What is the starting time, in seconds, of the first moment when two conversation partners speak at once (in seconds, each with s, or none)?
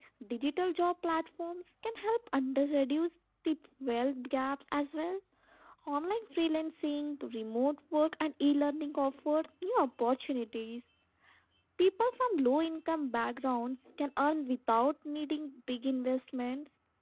none